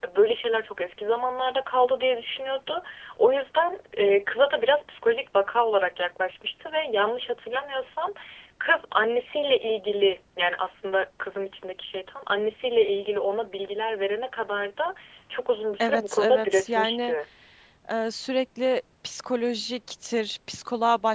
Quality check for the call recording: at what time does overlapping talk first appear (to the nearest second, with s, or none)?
16 s